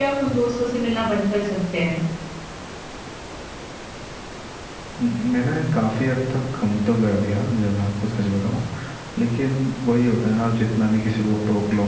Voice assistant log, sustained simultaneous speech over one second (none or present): none